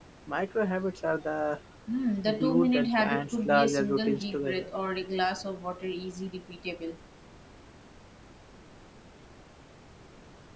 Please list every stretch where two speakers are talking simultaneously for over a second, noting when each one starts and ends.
2.2-4.7

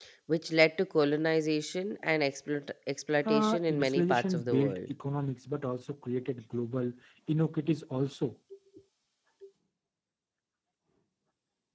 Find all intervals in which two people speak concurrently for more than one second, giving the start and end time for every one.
3.2-4.8

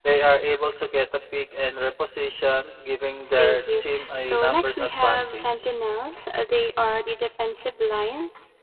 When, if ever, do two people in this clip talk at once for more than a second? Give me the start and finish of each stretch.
3.3-5.7

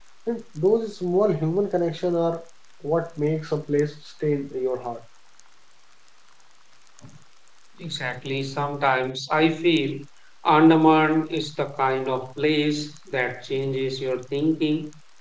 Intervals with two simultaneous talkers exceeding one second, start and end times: none

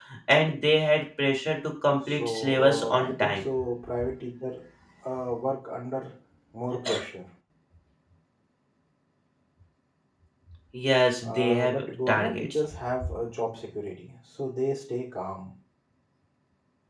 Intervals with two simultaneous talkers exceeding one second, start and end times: 2.1-3.5, 11.2-12.5

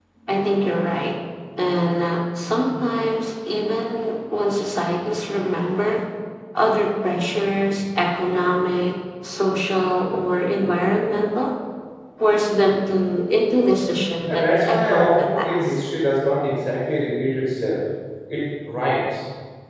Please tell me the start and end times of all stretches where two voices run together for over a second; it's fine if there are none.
14.2-15.8

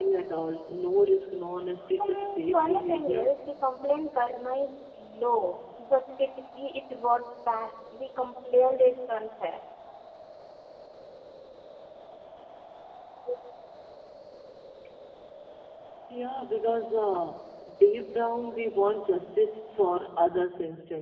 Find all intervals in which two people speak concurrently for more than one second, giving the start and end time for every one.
2.0-3.2

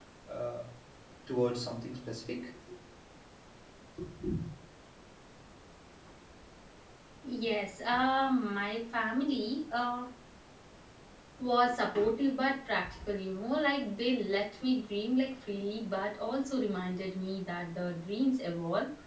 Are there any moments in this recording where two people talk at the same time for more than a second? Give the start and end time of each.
none

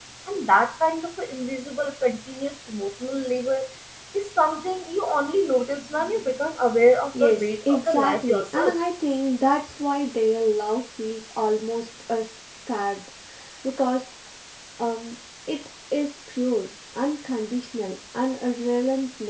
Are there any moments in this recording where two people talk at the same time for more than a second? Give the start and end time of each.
7.2-8.8

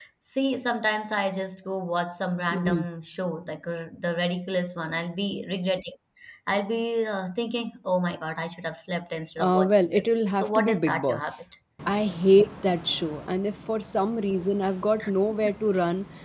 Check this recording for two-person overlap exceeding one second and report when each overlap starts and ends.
9.4-11.4

